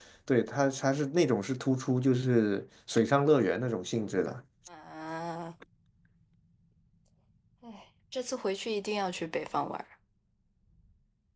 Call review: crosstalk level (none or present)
none